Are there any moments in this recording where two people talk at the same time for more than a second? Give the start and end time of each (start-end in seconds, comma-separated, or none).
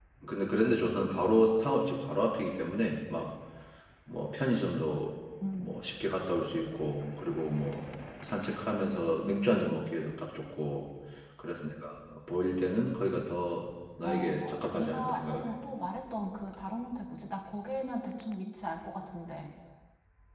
14.0-15.5